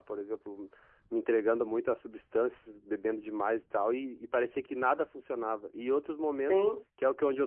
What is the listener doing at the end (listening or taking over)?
listening